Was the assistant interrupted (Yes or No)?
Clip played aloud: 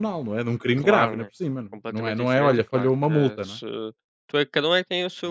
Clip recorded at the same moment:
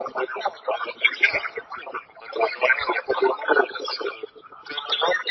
No